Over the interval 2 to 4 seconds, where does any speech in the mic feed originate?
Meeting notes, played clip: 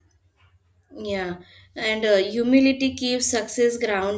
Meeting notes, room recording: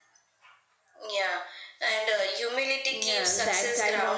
both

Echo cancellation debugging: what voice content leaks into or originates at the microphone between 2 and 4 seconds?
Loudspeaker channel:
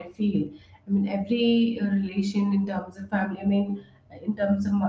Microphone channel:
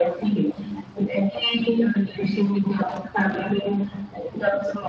echo only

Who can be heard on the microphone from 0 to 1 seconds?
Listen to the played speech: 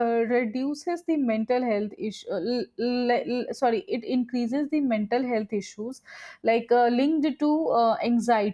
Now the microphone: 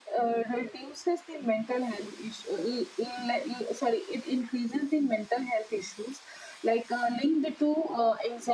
echo only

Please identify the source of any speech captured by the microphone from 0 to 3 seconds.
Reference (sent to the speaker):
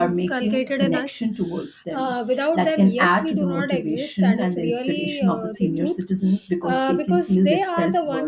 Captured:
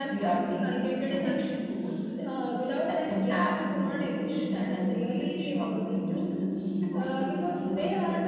echo only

